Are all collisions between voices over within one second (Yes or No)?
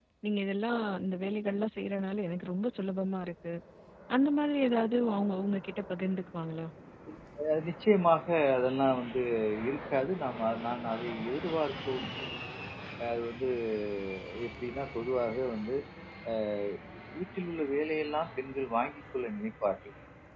Yes